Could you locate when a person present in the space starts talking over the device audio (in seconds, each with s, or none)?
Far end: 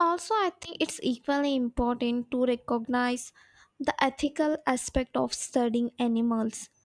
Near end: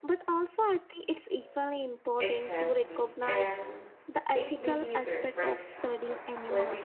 2.2 s